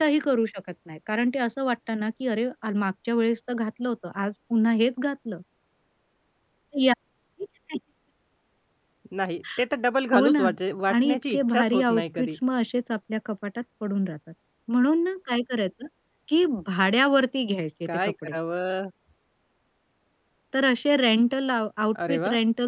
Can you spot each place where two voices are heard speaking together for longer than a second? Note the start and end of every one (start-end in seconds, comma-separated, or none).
10.9-12.4